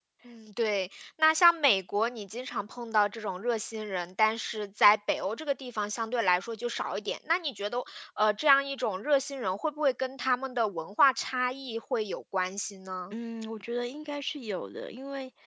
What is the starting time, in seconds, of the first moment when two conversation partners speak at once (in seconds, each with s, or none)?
none